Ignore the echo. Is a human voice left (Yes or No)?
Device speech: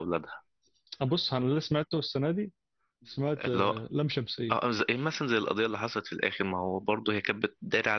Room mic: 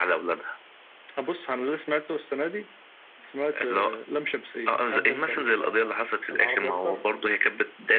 Yes